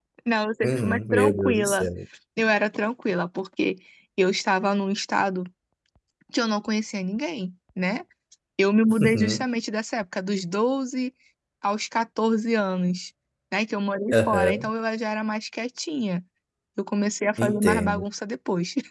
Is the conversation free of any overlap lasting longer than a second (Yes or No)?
No